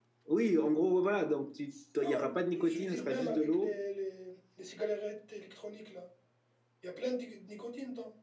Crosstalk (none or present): present